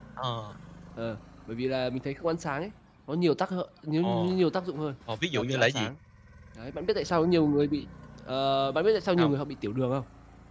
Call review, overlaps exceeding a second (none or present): none